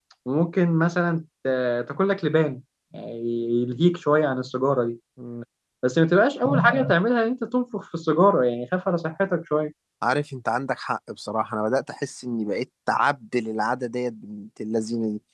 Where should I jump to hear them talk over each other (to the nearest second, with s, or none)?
none